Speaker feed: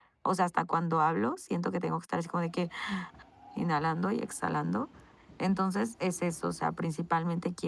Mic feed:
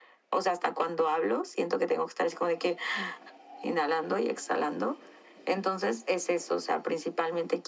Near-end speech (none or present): none